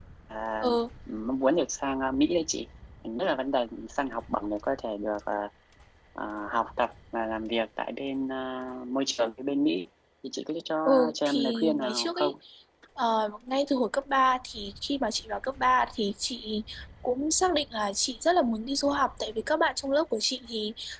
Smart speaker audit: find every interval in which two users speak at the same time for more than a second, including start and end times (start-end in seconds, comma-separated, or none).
11.1-12.3